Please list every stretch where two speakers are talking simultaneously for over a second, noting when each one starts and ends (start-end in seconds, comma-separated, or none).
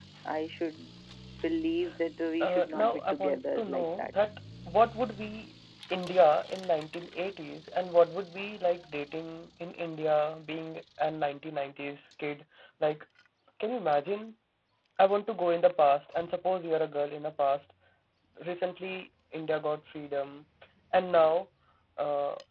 2.4-4.1